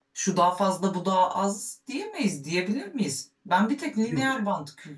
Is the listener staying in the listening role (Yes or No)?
Yes